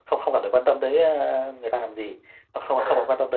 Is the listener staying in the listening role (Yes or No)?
Yes